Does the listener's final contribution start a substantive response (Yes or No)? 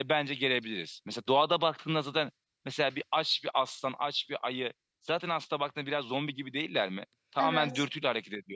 No